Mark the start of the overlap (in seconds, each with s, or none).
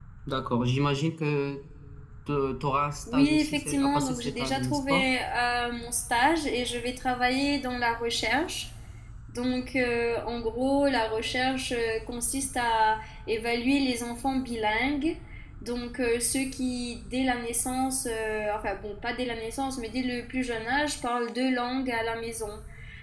3.1 s